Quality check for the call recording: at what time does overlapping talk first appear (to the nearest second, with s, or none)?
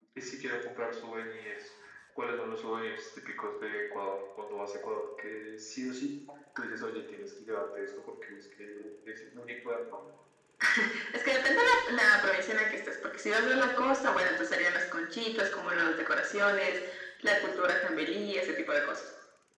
none